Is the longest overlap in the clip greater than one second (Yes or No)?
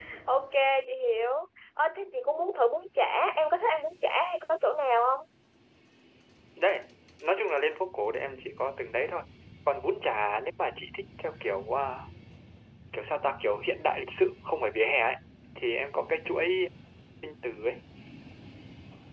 No